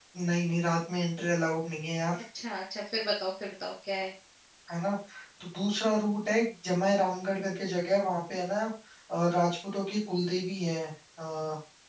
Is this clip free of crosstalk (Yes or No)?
Yes